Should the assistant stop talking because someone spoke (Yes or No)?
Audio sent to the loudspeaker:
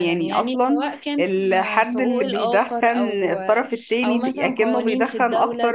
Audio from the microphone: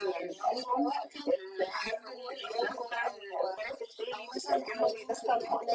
No